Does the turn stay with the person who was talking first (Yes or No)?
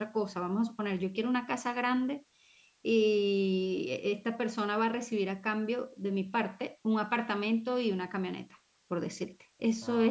Yes